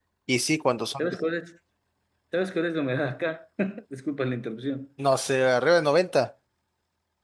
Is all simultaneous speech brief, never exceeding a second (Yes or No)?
Yes